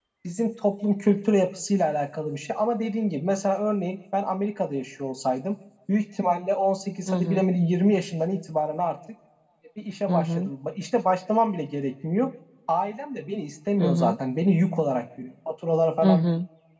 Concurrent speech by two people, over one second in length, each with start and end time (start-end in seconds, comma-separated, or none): none